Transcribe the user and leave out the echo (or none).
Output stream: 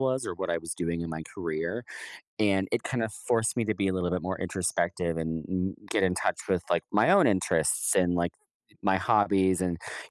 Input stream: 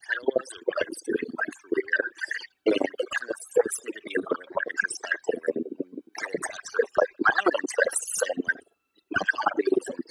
none